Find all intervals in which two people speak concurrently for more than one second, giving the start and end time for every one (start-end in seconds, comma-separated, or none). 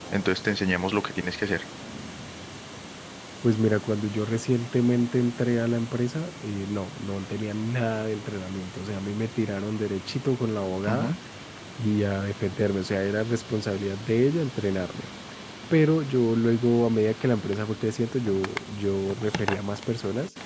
none